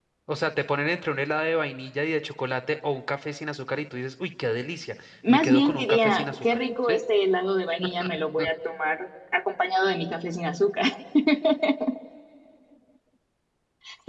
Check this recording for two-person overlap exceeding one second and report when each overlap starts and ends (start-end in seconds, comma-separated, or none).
5.3-7.0